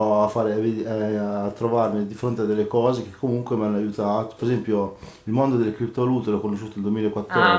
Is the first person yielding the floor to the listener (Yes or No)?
No